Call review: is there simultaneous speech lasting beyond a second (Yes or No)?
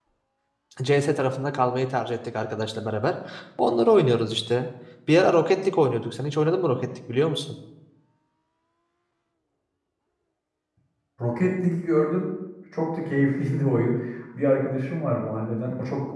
No